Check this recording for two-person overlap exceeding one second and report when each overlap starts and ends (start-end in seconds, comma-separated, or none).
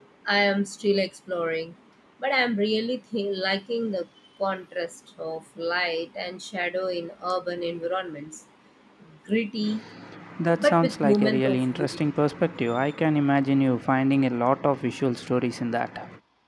10.6-12.0